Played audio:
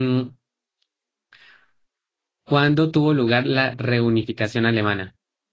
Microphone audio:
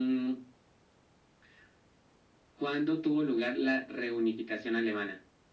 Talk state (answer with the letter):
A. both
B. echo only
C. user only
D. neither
B